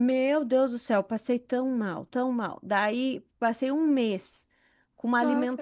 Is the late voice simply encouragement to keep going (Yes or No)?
Yes